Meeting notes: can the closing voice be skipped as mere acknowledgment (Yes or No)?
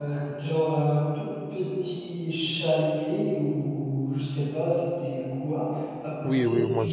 No